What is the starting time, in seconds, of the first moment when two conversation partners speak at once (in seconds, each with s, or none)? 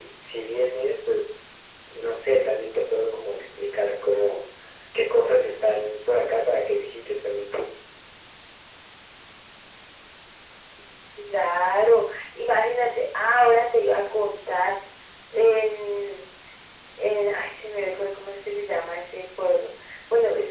none